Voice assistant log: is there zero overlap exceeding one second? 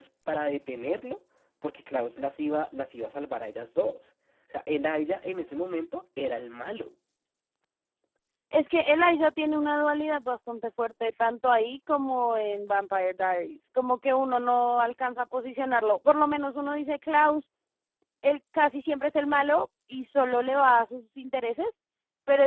Yes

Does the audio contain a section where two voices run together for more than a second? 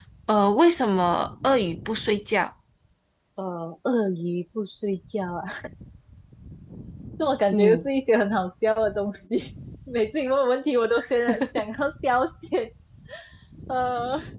No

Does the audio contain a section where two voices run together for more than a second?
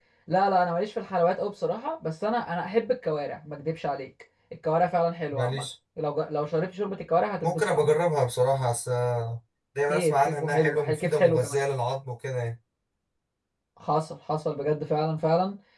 Yes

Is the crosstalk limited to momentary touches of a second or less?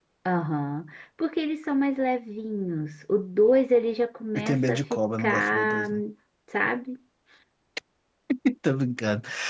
No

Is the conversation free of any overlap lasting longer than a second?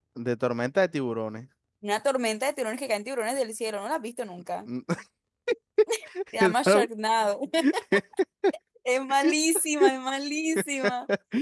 Yes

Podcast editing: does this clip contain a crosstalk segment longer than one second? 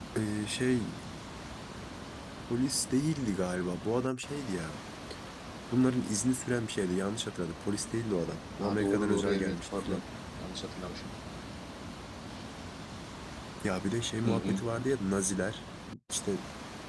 Yes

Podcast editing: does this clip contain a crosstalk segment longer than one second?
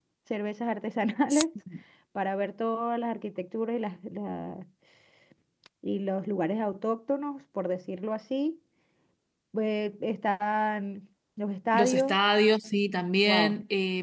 No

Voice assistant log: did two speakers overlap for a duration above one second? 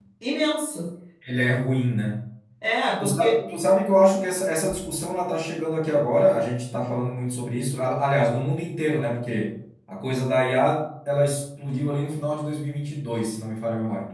No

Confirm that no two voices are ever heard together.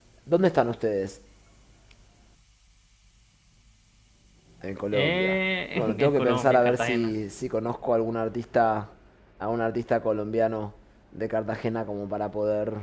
No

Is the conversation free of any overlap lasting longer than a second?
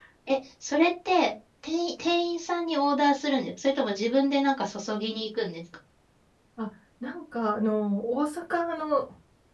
Yes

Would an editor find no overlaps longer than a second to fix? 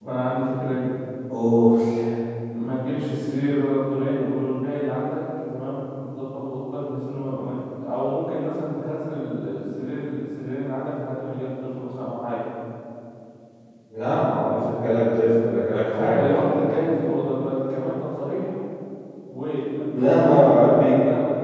No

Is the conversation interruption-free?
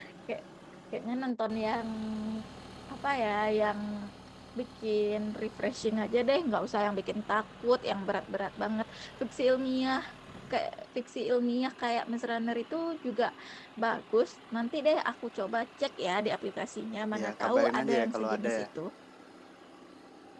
No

